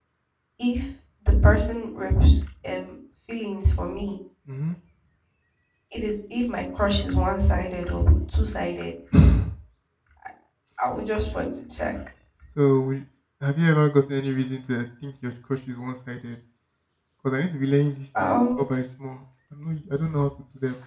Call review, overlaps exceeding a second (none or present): none